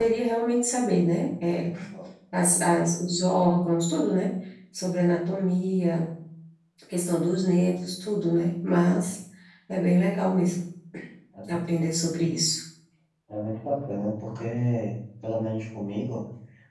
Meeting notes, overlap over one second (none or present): none